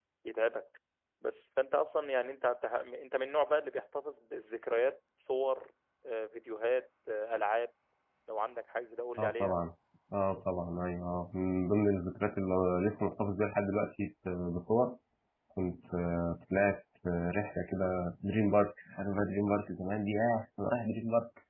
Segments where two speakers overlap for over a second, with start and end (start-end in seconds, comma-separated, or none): none